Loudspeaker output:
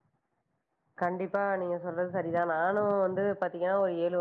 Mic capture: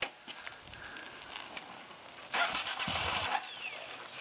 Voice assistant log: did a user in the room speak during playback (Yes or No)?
No